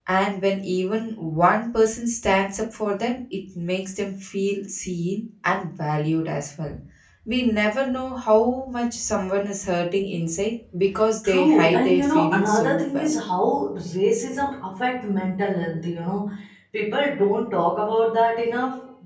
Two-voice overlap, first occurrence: 11 s

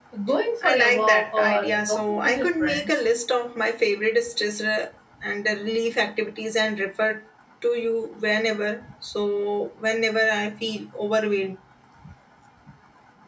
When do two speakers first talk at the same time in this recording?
1 s

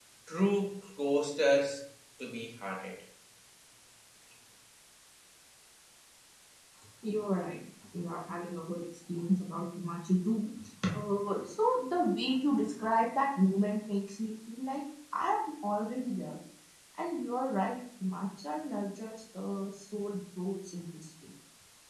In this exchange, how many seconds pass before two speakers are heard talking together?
none

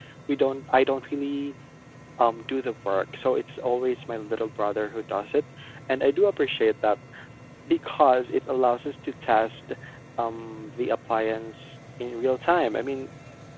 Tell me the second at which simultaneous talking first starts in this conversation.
none

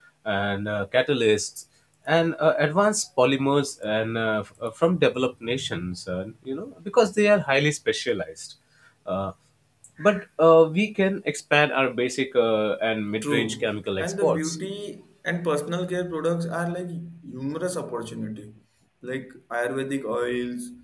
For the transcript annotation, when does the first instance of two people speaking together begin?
13 s

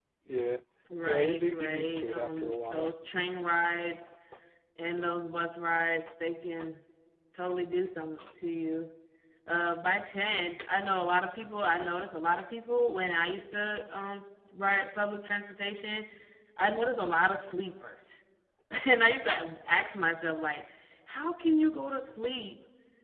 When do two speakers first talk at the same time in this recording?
1 s

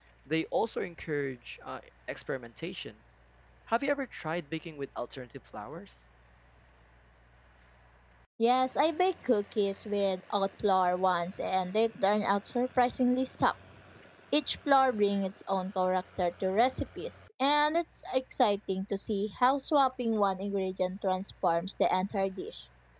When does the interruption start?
none

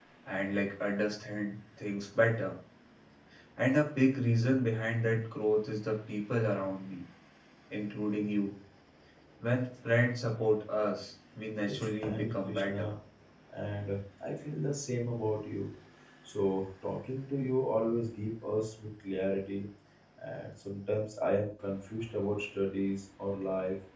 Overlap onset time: 12 s

